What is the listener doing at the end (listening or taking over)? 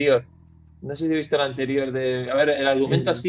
listening